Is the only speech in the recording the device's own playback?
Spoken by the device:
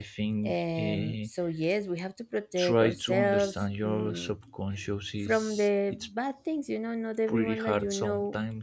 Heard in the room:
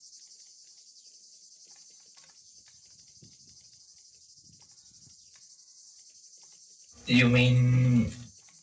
No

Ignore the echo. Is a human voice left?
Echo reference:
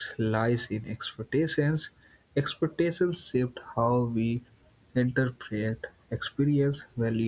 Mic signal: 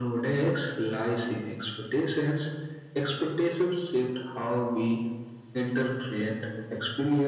No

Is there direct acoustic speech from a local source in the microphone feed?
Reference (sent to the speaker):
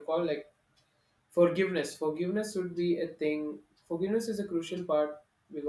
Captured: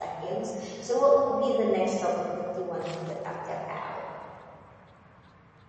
Yes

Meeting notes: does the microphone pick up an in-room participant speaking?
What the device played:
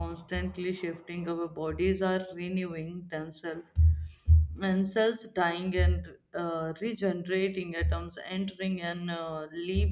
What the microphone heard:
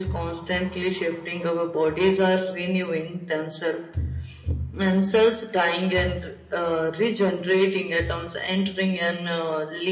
No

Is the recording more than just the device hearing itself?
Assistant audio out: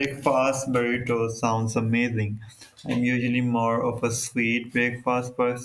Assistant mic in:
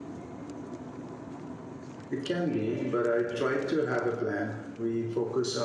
Yes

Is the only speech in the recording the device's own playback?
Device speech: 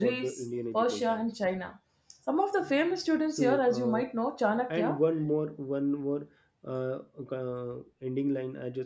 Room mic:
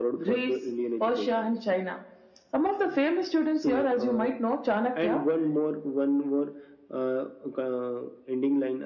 Yes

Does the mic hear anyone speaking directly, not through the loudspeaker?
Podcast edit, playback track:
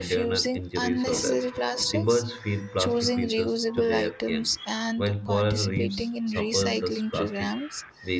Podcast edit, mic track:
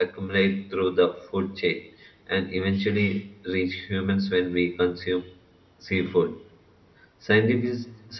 Yes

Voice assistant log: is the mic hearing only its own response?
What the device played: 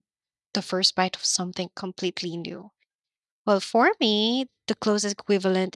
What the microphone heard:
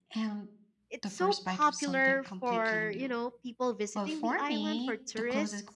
No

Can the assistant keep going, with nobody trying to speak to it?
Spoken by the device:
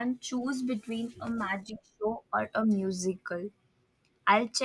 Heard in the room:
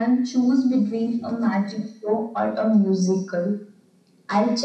Yes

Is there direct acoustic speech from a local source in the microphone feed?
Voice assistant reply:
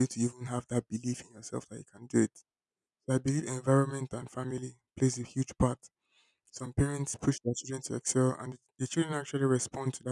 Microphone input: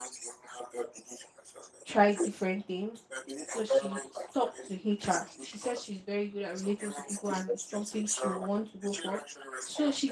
Yes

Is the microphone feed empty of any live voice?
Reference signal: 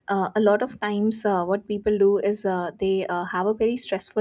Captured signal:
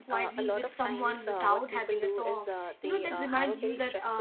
No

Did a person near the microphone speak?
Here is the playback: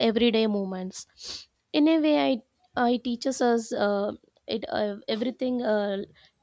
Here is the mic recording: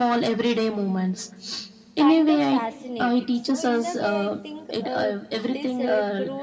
Yes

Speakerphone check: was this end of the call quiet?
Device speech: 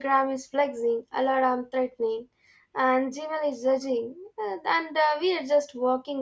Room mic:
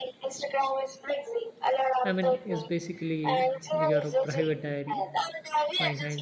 No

